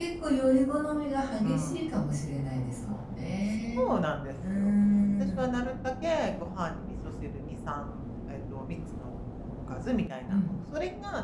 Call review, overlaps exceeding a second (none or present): none